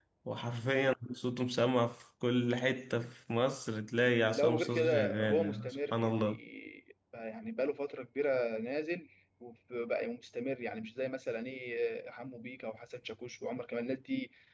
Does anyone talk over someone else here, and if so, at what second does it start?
4.3 s

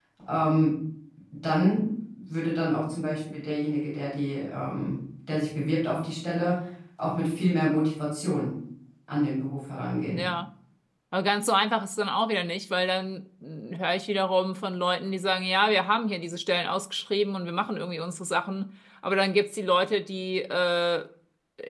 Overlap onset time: none

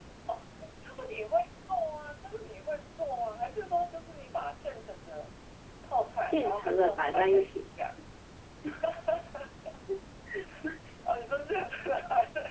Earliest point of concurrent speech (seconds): 6.2 s

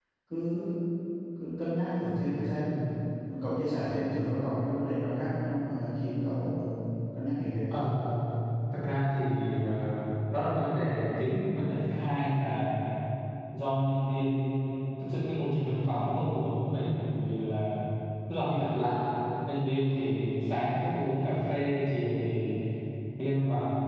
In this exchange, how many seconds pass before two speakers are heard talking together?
none

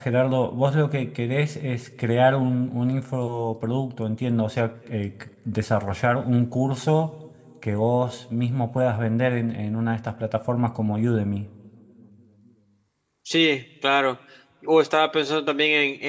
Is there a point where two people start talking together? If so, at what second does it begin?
none

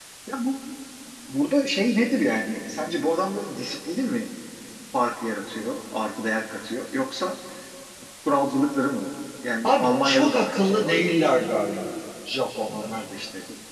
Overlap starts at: 9.6 s

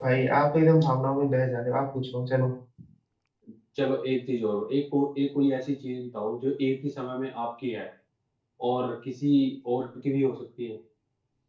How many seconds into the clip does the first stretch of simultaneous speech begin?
none

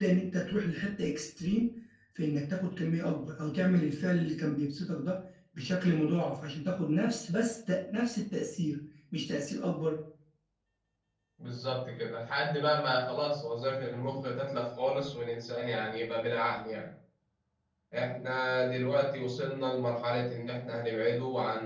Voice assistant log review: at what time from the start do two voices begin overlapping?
none

